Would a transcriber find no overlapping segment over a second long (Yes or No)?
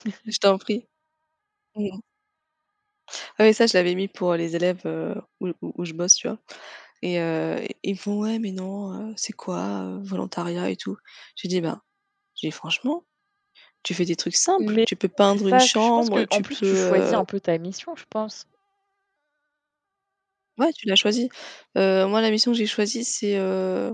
No